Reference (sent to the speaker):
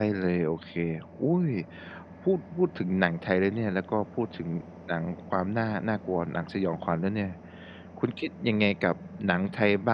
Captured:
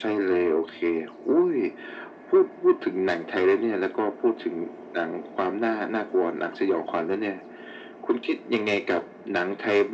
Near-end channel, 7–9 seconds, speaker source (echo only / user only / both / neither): echo only